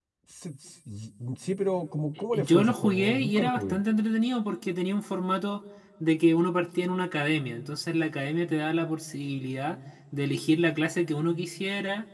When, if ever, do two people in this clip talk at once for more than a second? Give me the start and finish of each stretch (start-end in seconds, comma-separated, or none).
2.3-3.8